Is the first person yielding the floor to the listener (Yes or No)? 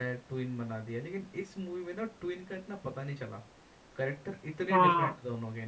No